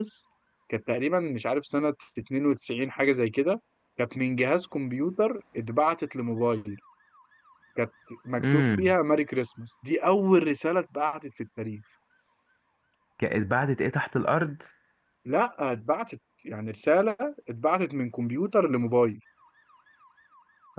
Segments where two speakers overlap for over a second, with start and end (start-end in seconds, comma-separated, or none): none